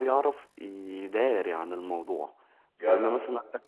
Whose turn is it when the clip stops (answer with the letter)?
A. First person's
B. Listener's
A